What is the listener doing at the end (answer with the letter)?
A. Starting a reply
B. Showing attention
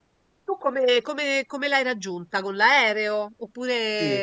A